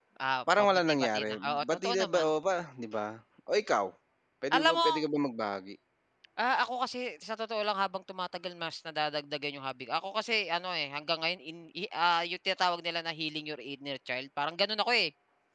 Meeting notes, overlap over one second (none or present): present